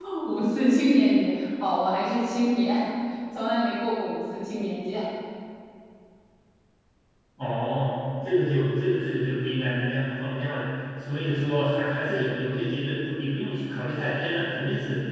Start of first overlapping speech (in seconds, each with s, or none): none